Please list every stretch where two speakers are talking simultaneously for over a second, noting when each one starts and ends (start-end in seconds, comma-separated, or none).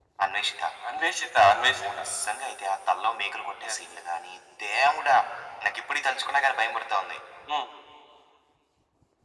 none